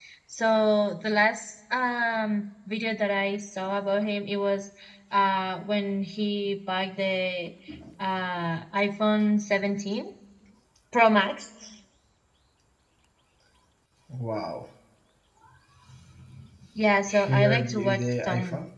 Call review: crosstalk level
present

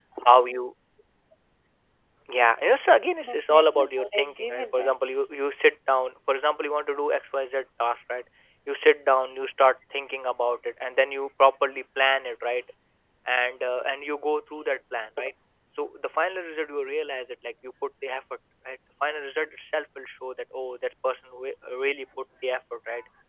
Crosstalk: present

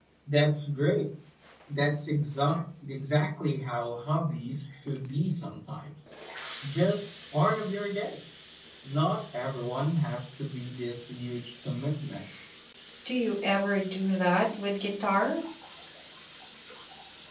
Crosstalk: none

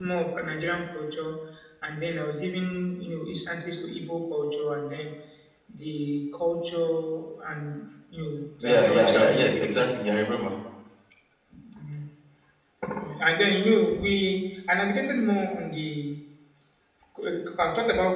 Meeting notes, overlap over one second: present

